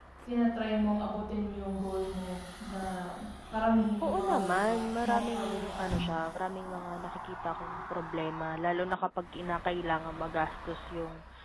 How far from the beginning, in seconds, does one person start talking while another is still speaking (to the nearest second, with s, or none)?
4 s